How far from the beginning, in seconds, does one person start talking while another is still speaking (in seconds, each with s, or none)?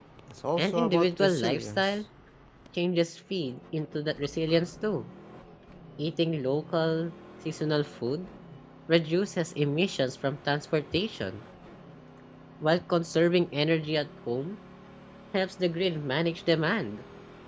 0.6 s